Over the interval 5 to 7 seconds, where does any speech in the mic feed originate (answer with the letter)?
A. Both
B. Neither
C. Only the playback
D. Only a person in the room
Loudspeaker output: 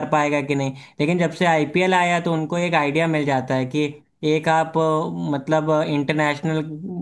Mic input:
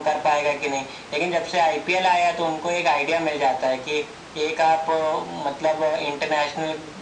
C